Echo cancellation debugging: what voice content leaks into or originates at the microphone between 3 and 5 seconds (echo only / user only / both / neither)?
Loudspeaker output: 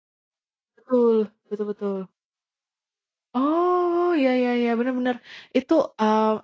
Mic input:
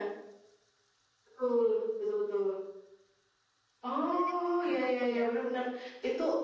both